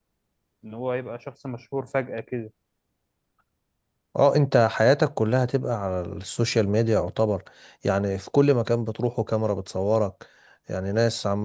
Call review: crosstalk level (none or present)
none